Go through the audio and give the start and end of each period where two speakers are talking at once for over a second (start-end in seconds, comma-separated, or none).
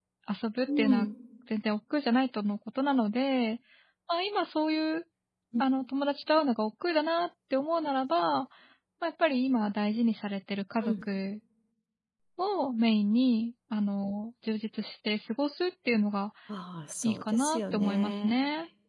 17.0-18.3